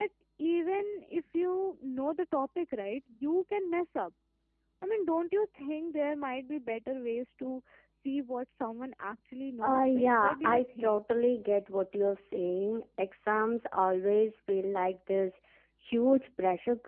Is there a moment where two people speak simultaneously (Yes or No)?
Yes